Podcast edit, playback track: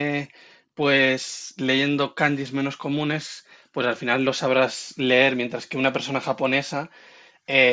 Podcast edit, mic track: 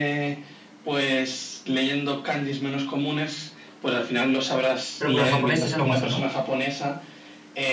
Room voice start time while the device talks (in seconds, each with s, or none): 5.0 s